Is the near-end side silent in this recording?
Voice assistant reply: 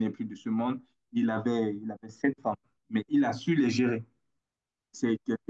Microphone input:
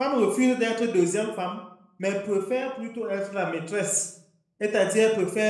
No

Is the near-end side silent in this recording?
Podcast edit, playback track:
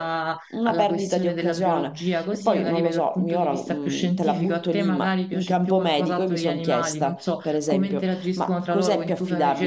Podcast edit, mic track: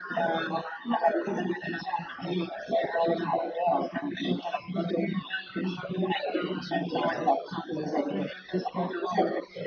Yes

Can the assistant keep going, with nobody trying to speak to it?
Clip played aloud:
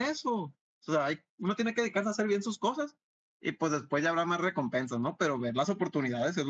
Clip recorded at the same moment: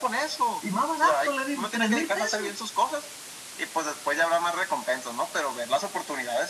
No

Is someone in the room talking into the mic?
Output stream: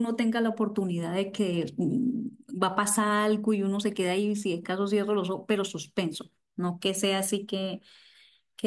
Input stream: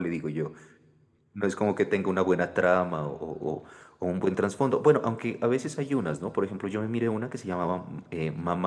Yes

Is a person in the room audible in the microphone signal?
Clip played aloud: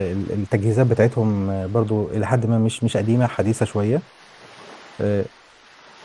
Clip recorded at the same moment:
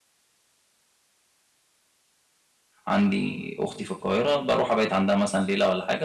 Yes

